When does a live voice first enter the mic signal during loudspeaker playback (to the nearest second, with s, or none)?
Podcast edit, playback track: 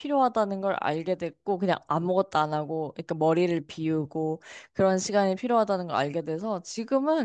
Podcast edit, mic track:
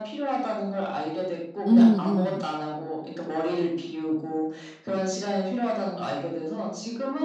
2 s